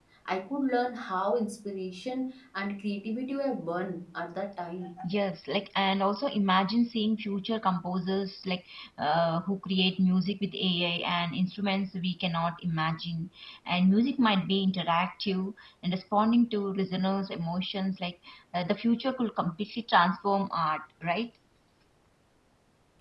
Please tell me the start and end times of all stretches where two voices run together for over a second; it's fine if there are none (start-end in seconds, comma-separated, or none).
none